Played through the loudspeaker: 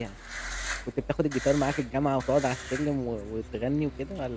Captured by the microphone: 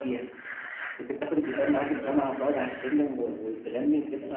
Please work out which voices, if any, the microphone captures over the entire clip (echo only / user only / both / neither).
both